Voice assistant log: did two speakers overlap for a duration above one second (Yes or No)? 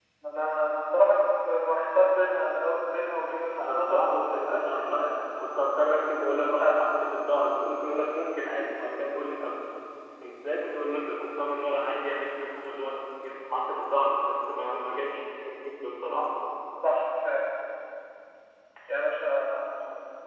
Yes